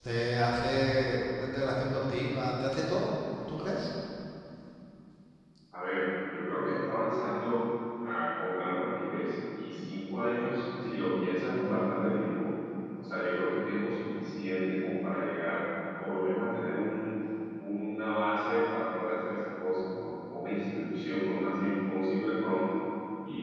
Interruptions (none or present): none